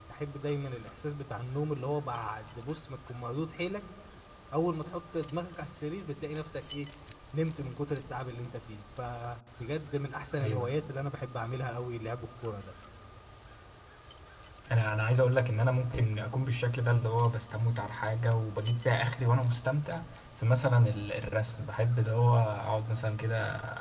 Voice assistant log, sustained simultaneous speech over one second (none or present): none